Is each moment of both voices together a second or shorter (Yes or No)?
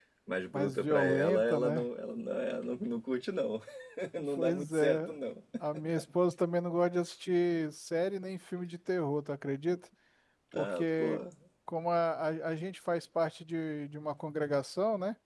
No